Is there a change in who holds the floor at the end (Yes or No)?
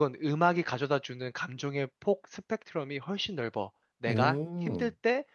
No